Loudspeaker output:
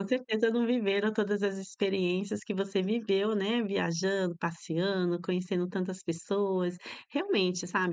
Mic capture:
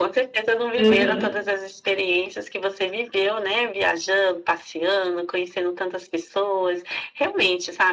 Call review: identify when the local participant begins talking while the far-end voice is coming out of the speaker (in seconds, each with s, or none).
0.8 s